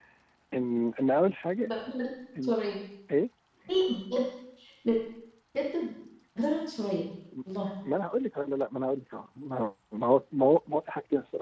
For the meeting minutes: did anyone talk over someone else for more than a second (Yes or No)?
No